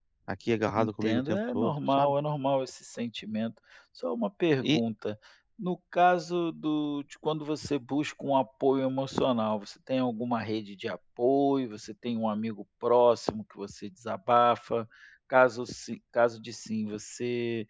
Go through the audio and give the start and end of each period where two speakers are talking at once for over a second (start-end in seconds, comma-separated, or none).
0.7-2.1